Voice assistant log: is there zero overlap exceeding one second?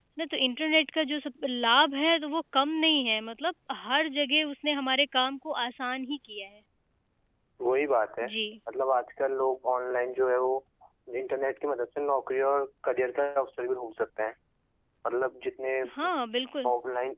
Yes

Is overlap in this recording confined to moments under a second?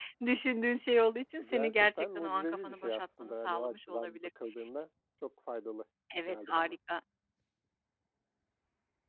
No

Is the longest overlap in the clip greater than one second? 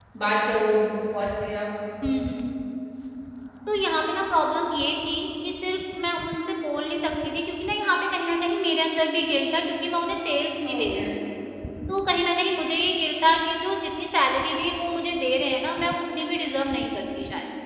No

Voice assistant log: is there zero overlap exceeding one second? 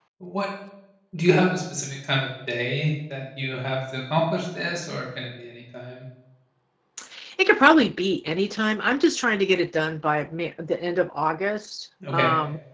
Yes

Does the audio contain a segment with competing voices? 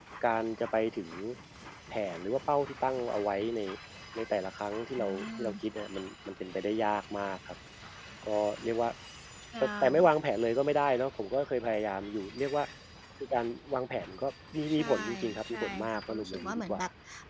Yes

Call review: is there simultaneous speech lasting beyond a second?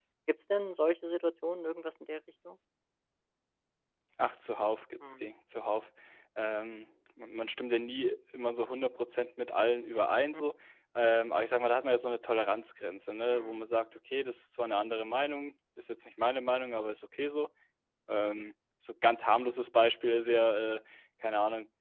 No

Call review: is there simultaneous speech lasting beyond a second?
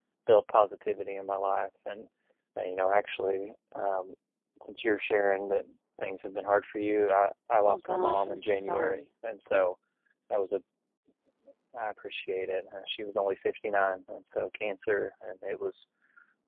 Yes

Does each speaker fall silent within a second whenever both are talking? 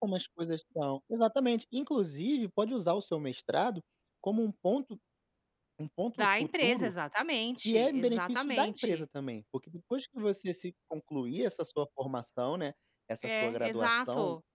No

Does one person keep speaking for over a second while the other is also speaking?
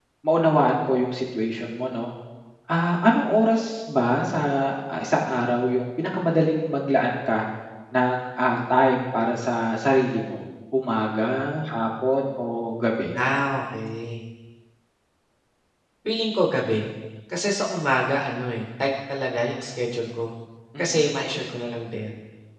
No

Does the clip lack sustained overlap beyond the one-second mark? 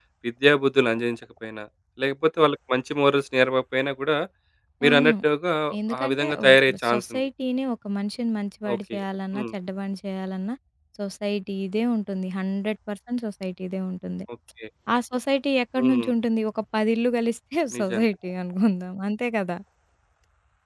No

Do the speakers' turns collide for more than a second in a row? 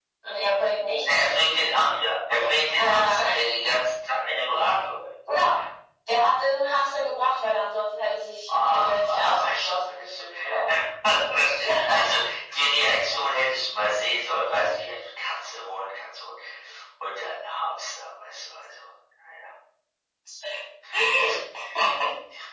Yes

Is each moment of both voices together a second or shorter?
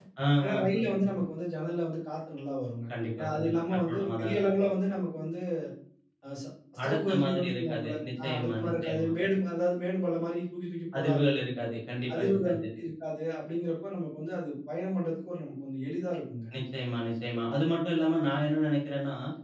No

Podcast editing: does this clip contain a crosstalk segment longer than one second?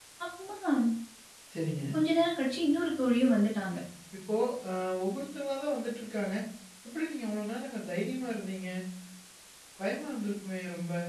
No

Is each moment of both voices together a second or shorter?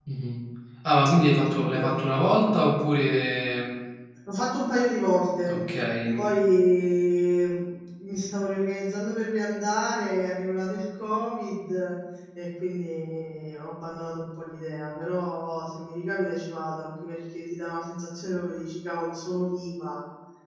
Yes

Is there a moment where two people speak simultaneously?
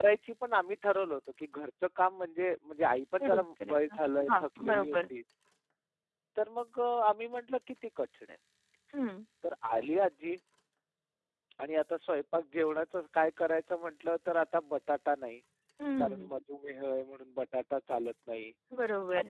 Yes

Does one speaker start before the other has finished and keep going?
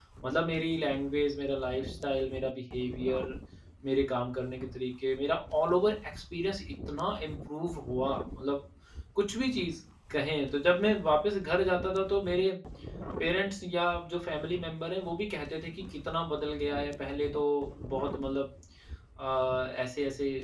No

